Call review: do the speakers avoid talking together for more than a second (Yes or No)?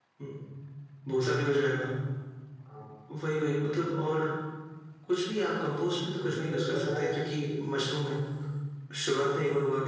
No